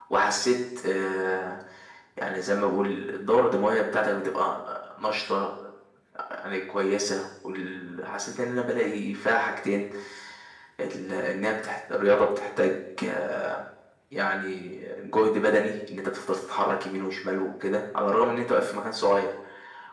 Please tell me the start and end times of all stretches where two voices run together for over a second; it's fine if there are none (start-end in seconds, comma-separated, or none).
none